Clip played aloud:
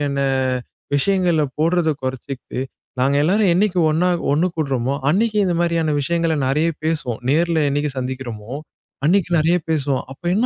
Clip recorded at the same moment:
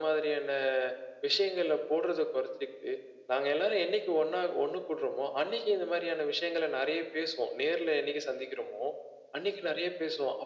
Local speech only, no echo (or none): none